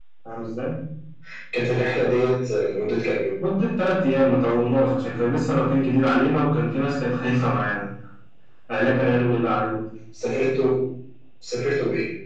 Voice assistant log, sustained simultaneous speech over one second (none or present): none